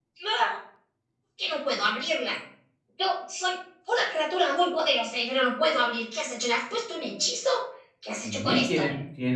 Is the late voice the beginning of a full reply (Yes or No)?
Yes